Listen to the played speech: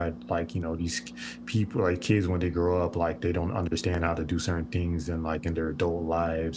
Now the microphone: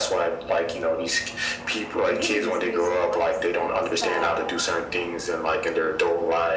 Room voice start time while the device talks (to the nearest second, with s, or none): 2 s